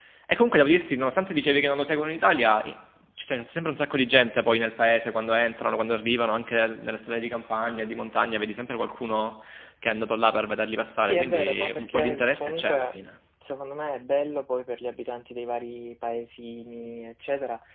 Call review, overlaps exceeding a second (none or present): present